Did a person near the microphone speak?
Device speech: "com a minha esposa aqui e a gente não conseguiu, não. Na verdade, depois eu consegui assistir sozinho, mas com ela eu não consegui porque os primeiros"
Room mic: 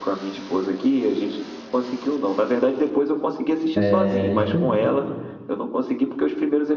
Yes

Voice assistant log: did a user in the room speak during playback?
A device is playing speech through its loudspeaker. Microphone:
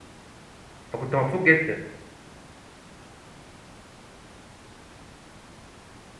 Yes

